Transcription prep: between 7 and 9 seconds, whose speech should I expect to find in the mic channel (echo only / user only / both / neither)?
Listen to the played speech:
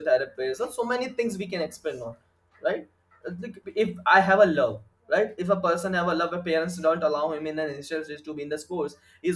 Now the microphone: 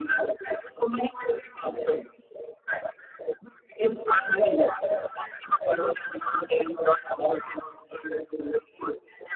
echo only